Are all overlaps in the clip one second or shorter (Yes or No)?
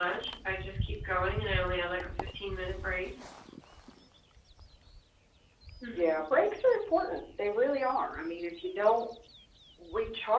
Yes